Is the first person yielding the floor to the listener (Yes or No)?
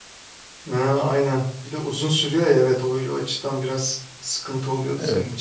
Yes